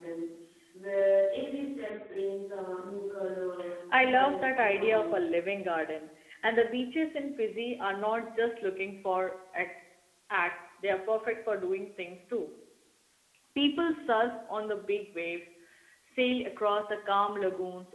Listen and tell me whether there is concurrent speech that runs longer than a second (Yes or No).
Yes